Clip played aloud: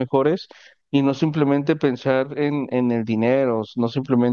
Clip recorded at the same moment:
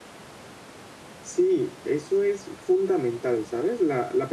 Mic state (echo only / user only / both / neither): user only